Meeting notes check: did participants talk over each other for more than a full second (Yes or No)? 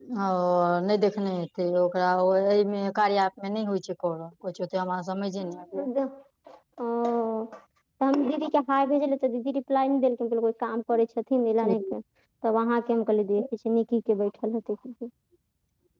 No